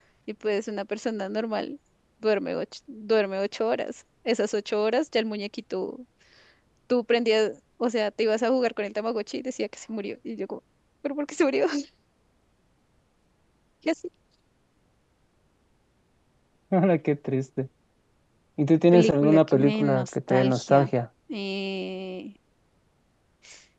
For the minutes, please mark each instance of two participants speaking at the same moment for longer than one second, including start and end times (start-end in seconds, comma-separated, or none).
18.9-20.9